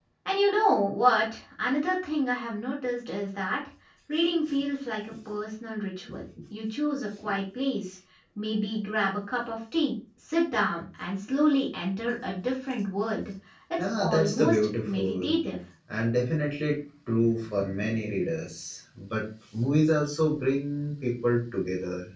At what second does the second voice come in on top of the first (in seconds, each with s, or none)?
13.8 s